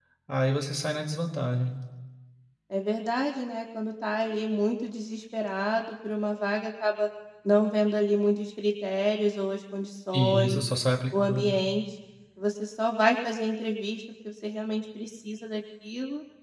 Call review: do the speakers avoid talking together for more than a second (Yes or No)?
Yes